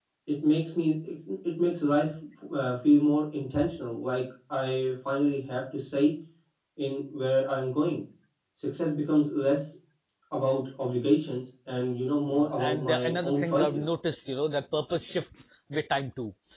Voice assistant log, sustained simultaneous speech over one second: present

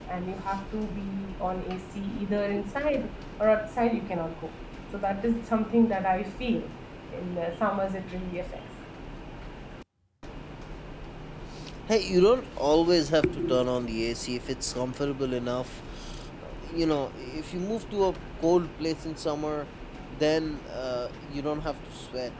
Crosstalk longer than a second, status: none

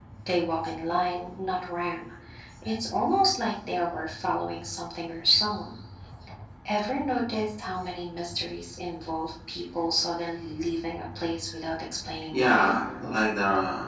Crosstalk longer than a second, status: none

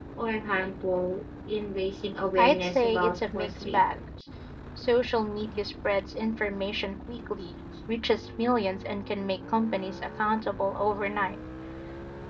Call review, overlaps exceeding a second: present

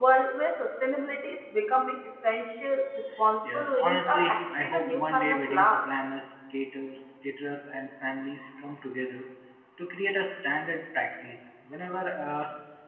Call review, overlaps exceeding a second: present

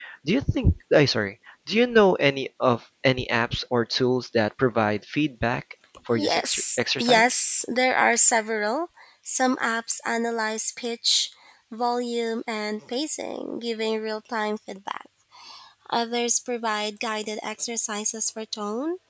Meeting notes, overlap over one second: present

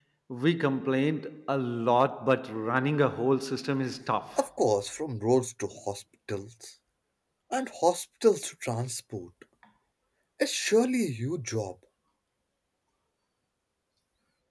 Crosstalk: none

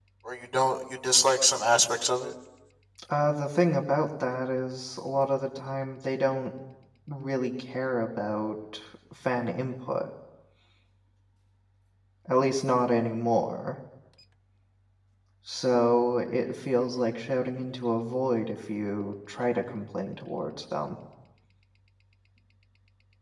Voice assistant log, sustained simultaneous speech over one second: none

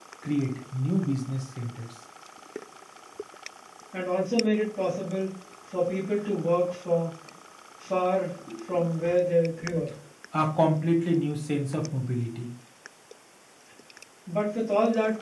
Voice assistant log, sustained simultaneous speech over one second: none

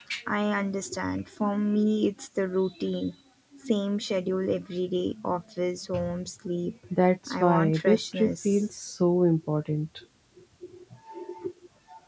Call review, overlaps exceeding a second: present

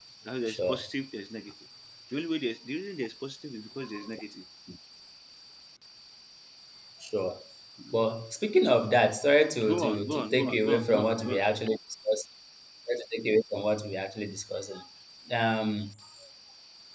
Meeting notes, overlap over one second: present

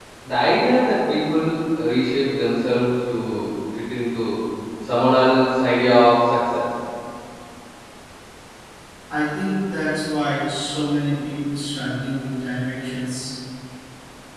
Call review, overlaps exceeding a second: none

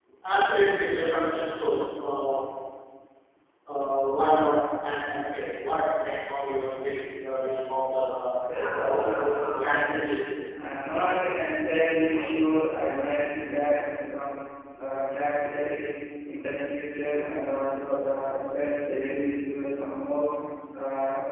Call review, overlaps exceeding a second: none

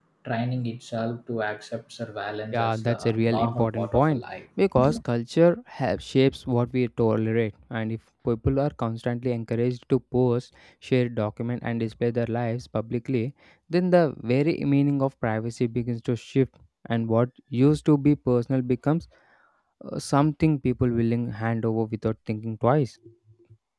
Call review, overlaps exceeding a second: present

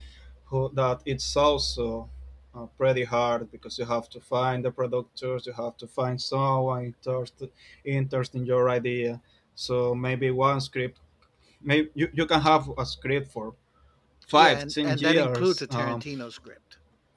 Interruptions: present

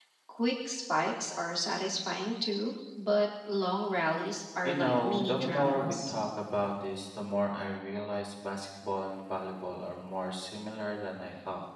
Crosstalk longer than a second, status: present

